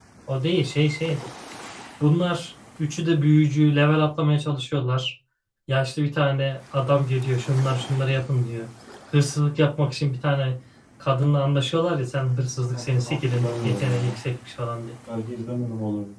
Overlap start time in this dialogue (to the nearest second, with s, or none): 13 s